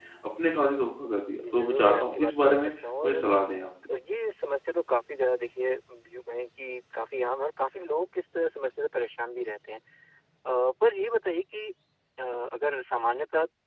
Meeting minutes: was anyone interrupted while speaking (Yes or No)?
Yes